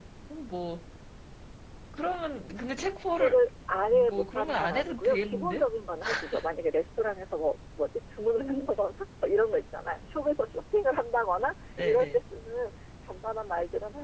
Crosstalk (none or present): present